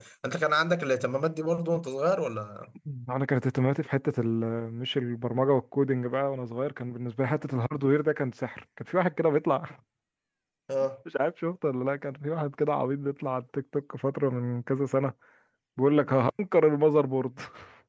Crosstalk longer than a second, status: none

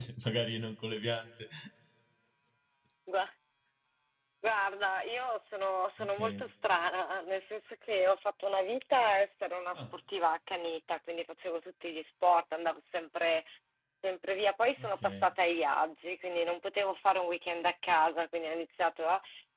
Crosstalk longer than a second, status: none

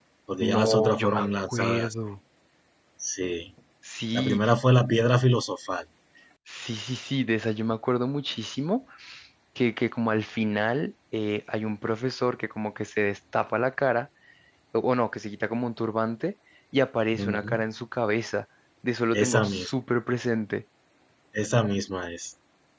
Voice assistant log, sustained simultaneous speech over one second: present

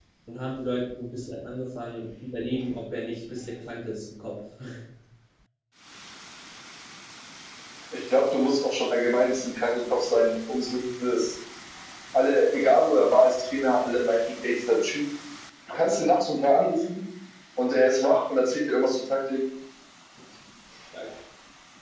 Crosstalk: none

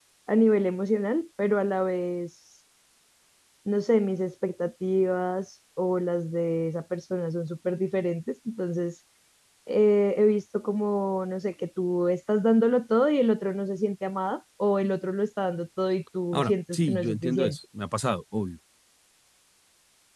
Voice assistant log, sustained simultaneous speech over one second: present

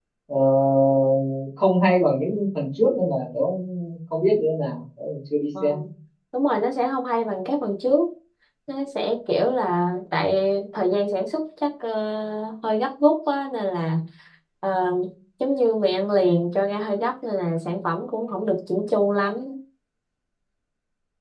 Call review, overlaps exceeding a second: none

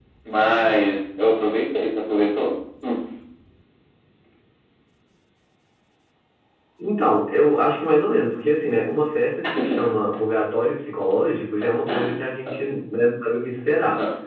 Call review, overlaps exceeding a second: none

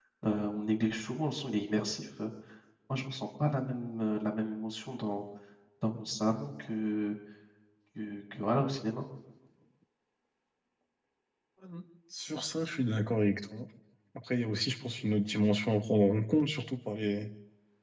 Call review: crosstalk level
none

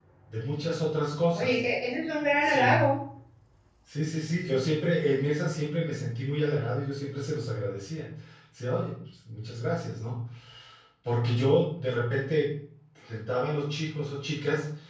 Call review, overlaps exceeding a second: none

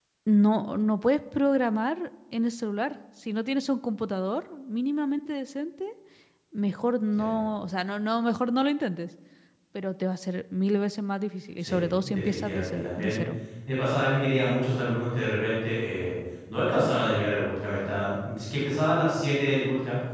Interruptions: present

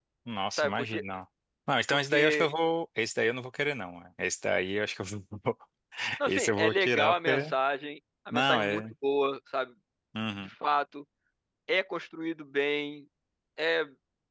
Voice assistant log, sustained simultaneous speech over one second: present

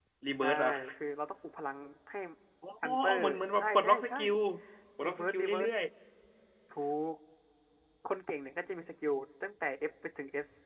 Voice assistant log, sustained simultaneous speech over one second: present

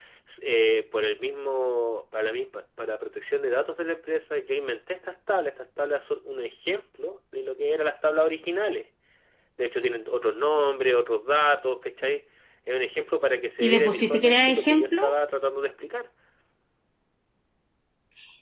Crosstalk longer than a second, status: present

